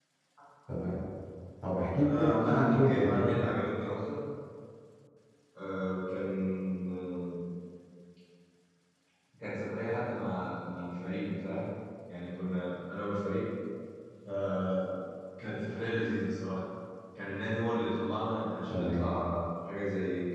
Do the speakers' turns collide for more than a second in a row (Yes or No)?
Yes